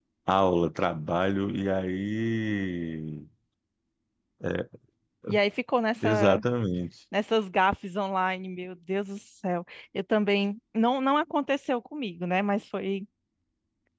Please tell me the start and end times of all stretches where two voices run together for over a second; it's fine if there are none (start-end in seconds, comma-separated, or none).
none